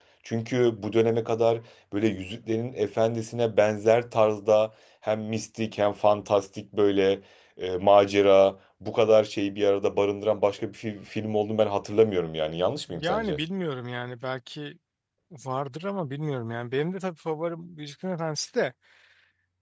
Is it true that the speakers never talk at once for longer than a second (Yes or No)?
Yes